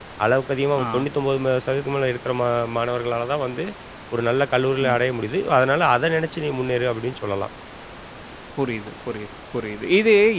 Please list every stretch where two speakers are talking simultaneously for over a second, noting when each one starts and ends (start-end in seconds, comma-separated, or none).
none